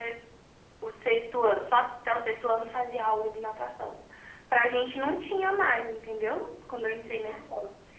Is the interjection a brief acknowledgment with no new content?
Yes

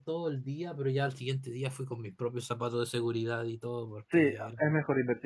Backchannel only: No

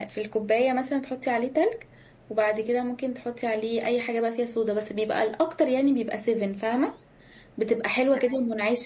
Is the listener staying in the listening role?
Yes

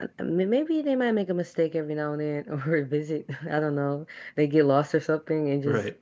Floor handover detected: No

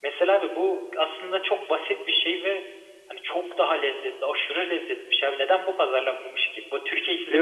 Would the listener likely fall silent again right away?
No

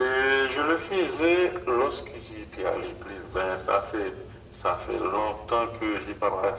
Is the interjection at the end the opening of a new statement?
No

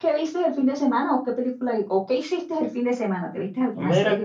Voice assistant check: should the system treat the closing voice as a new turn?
Yes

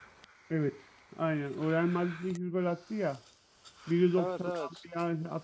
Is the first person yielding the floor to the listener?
No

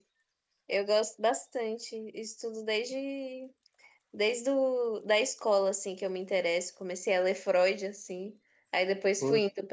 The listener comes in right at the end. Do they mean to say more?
No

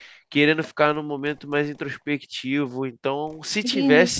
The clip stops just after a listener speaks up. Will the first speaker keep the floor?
No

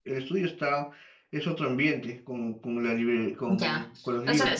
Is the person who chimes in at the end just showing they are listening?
No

